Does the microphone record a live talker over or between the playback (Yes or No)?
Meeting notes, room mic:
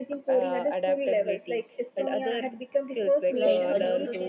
Yes